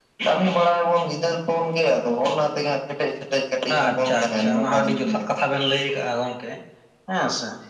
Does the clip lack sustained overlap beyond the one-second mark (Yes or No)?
No